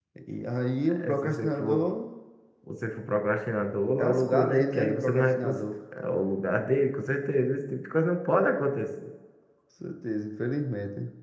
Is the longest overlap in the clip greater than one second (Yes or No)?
Yes